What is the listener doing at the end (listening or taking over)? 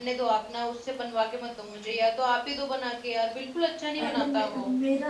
taking over